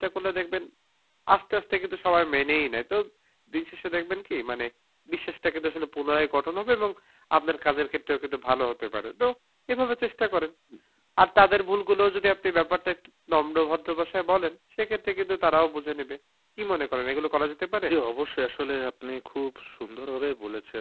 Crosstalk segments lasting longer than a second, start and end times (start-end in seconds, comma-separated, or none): none